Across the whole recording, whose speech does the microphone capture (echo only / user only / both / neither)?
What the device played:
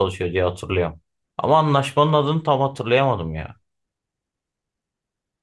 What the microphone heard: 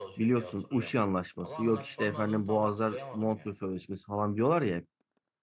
both